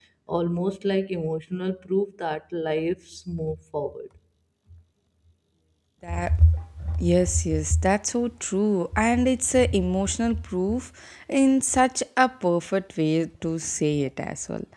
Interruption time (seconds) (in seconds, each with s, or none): none